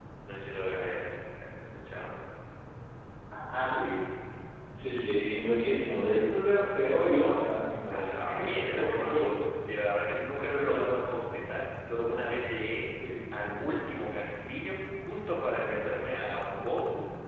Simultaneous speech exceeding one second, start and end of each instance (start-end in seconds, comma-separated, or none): 7.9-9.3